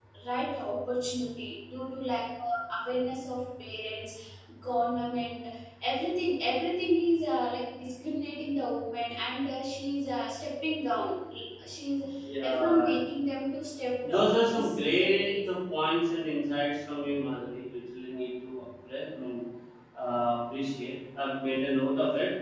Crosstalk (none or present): present